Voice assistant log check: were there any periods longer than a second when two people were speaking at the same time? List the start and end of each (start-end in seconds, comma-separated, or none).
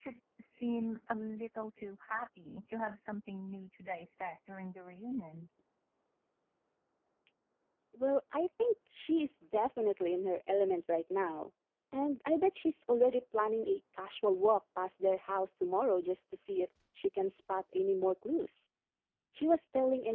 none